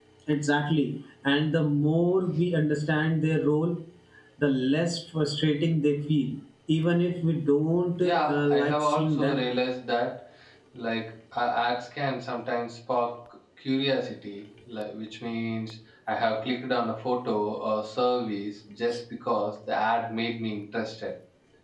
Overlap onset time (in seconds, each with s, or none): 8.0 s